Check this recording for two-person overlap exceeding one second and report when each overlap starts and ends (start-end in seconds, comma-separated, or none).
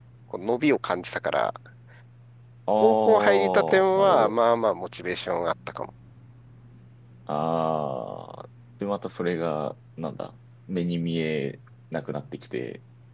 2.8-4.3